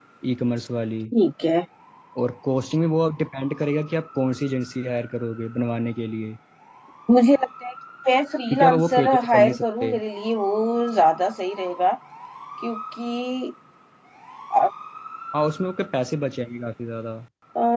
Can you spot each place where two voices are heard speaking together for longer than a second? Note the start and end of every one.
8.5-9.9

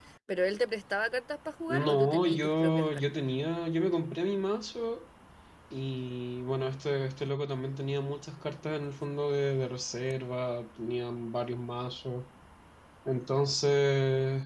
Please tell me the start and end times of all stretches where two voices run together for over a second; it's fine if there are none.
1.7-3.2

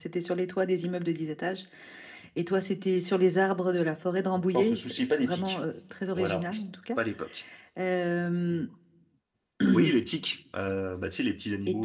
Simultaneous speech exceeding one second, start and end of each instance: 4.3-5.6

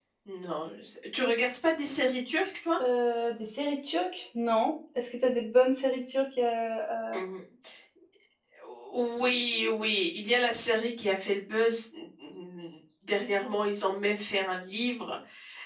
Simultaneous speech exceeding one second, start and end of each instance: none

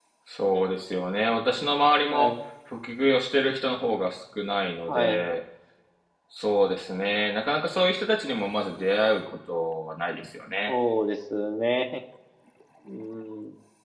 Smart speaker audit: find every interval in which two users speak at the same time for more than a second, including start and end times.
none

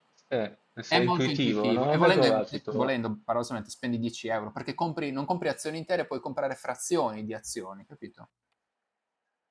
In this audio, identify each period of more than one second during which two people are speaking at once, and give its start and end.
0.9-2.9

